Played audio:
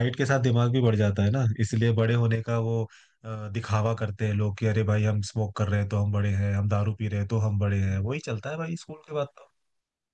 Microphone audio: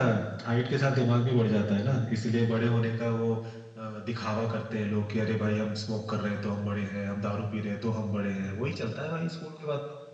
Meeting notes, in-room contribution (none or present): none